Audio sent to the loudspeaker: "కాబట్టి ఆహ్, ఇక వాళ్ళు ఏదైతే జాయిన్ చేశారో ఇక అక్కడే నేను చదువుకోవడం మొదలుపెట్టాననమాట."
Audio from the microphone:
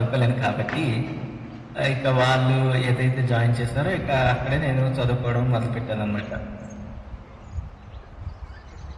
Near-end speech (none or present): none